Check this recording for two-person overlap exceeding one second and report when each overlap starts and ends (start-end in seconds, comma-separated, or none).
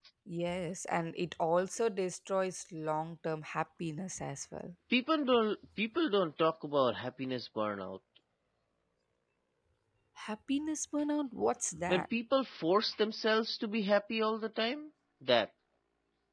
none